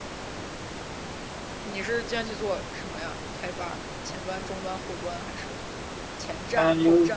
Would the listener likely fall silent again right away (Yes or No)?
No